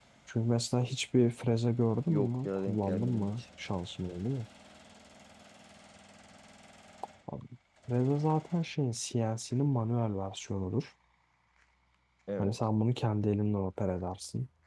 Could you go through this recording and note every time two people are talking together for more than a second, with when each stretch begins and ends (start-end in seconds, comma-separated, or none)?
2.1-3.3